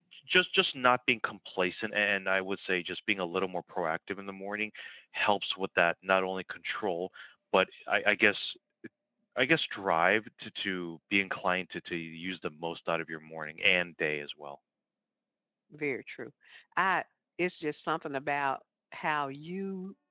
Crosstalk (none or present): none